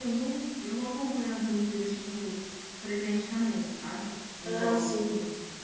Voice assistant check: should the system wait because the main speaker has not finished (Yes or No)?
Yes